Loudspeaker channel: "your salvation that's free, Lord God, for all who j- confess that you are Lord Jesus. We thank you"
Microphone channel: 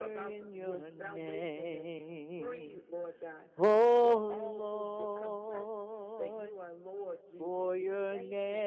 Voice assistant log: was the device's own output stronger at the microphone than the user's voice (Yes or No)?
No